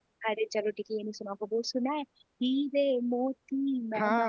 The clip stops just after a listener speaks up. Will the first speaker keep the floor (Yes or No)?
No